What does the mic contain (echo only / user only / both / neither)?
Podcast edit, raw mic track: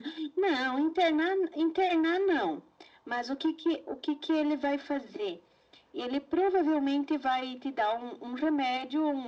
echo only